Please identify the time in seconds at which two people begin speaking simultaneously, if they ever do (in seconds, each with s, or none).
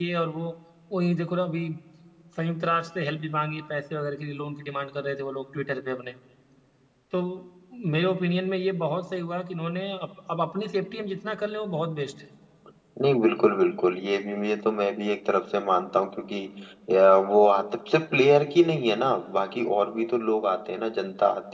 none